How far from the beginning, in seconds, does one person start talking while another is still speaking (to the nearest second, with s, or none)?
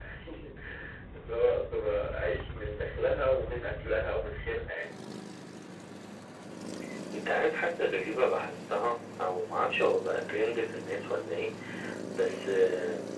none